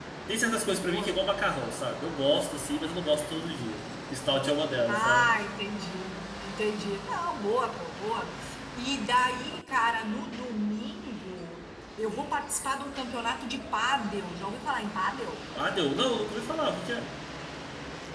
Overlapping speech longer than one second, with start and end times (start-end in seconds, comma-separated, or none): none